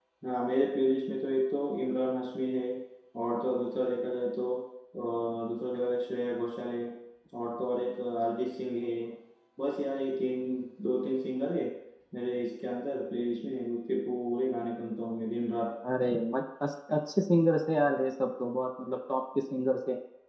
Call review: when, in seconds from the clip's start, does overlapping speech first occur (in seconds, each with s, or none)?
none